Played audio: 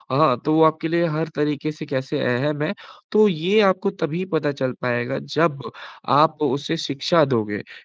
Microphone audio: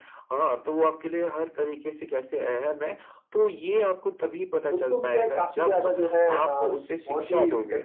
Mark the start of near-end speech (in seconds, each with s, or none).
4.7 s